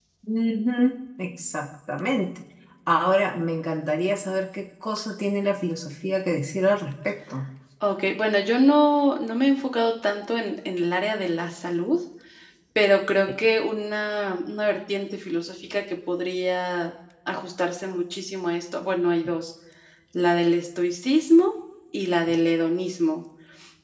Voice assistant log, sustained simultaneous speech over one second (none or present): none